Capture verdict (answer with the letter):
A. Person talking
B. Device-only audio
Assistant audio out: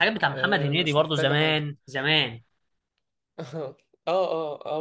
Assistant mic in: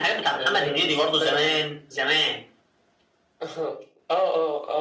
B